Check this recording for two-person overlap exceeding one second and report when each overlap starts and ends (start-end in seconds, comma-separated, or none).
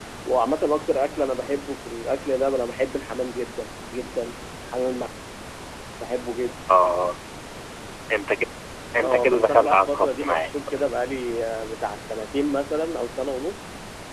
9.0-10.5